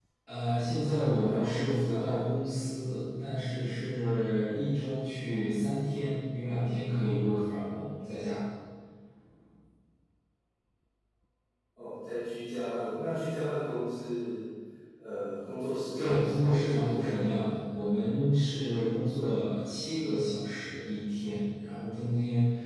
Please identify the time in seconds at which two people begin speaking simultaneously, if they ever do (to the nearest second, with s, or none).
1 s